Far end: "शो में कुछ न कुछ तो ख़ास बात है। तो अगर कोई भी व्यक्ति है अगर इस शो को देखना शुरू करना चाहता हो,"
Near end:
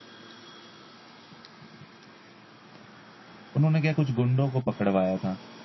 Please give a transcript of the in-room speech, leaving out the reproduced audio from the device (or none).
उन्होंने क्या कुछ गुंडों को पकड़वाया था।